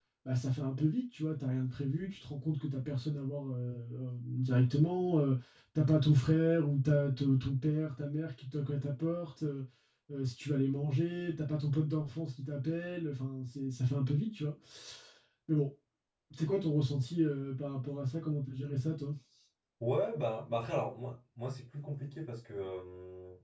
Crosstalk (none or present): none